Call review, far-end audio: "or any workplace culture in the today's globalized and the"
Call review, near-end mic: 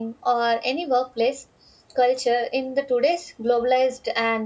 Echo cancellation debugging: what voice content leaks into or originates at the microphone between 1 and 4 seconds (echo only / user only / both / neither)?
echo only